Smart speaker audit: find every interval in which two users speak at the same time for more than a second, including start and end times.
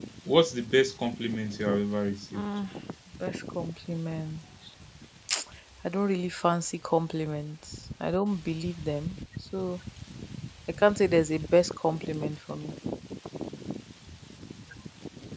none

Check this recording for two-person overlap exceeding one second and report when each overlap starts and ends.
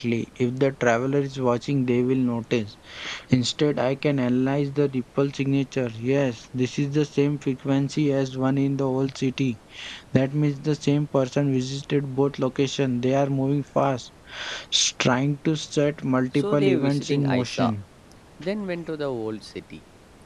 16.3-17.7

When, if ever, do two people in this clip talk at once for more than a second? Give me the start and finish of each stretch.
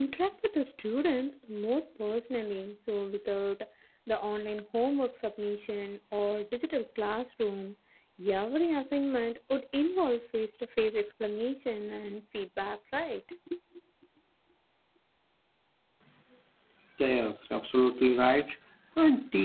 none

